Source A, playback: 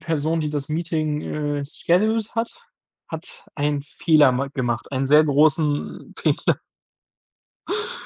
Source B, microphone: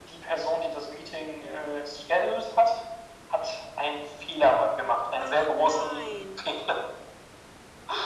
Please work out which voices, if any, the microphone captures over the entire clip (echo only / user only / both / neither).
both